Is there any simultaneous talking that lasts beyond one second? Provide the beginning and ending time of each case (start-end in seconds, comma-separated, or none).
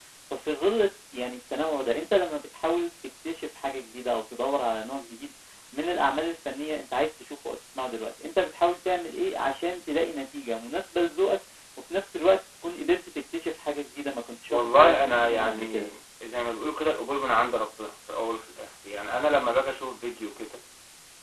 14.5-15.9